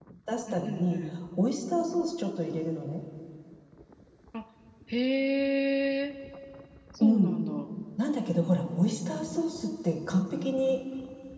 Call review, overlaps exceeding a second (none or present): none